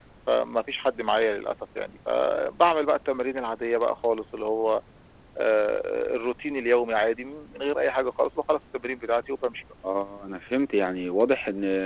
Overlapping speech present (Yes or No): No